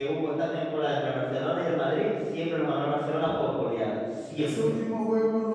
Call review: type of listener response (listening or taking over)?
taking over